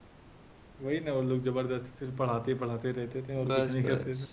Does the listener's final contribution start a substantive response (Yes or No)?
Yes